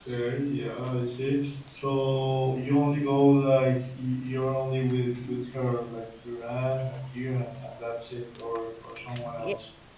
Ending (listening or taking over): taking over